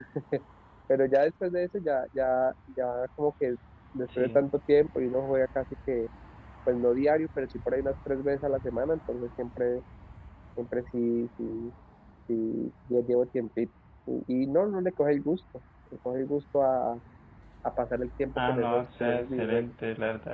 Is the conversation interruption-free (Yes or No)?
No